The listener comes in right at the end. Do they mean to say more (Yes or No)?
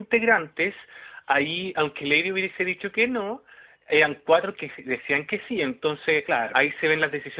No